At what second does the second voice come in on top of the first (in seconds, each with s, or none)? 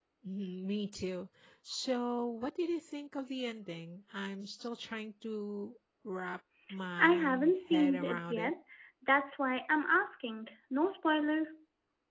7.0 s